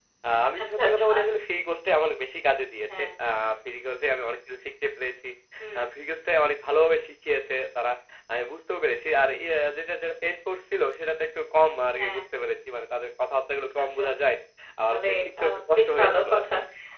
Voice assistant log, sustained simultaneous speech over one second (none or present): present